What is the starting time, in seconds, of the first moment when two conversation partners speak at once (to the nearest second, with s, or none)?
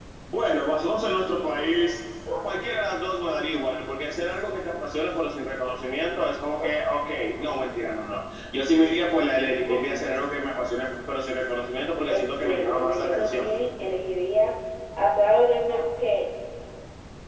12 s